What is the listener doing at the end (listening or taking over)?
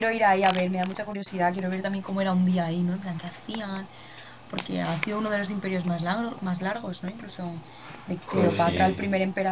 listening